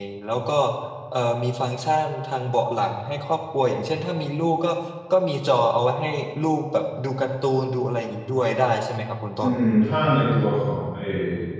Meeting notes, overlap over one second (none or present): none